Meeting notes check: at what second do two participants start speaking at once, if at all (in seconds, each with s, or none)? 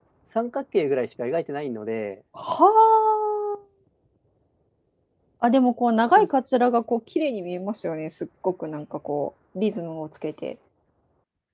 none